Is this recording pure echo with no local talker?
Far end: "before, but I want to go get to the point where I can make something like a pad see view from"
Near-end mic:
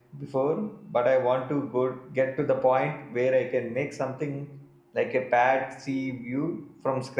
Yes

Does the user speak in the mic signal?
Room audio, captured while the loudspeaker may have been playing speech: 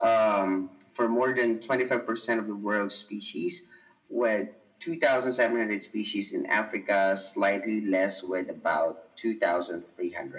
No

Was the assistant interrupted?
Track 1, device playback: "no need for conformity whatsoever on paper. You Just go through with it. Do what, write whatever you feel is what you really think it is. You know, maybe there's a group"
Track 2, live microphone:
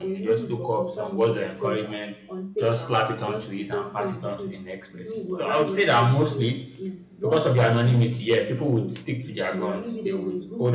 Yes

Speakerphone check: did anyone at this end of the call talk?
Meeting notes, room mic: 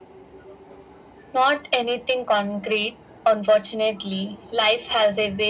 No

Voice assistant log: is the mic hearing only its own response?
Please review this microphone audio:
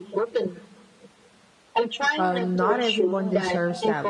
No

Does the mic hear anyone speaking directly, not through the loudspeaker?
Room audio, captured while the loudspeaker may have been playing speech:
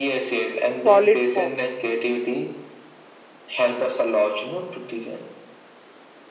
Yes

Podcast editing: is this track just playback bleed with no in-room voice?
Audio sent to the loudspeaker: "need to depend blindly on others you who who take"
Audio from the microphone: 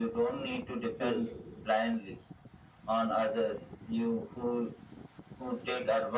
No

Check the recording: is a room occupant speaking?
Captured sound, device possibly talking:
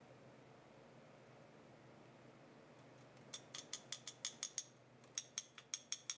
No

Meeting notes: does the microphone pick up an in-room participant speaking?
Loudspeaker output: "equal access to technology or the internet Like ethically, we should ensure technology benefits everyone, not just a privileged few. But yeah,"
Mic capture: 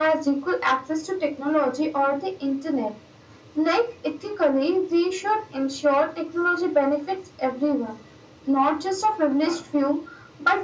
No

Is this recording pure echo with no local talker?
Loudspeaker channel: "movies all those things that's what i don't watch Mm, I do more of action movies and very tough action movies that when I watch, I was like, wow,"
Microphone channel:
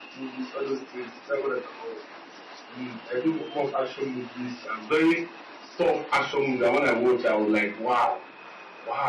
Yes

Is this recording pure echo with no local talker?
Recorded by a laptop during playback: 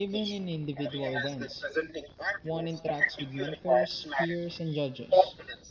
No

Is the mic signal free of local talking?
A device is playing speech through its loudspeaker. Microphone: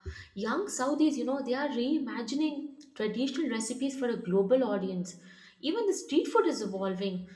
No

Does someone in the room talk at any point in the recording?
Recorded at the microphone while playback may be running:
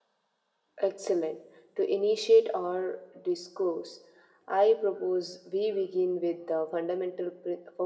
Yes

